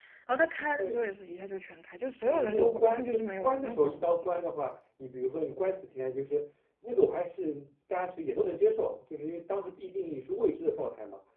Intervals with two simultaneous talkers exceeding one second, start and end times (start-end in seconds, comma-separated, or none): 2.2-3.9